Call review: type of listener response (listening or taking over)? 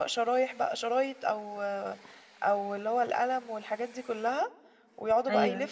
listening